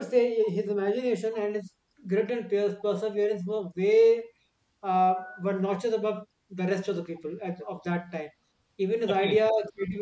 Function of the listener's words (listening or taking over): listening